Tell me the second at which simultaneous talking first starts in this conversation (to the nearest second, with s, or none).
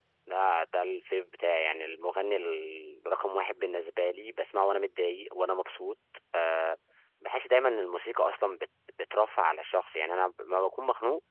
none